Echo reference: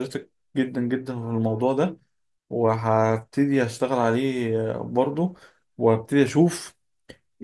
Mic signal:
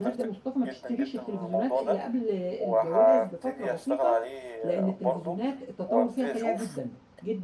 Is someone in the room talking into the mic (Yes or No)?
Yes